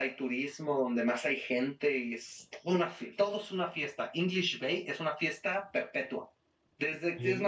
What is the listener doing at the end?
listening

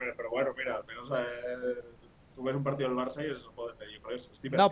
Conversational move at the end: taking over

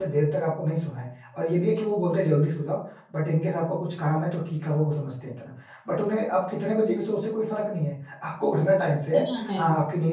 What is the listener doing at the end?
listening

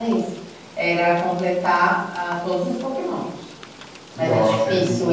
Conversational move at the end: taking over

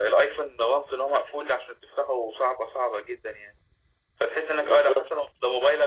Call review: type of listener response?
listening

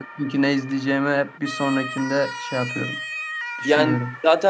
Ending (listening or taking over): taking over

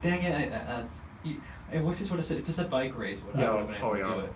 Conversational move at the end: taking over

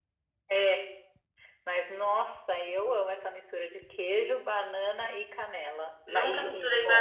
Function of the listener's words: taking over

